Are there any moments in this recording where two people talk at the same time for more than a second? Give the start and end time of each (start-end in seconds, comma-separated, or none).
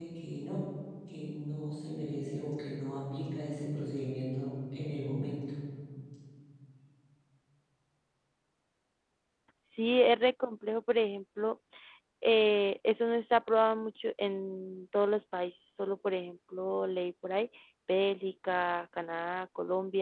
none